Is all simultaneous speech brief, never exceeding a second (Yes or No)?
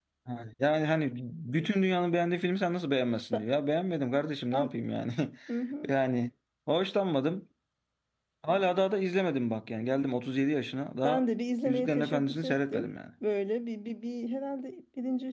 No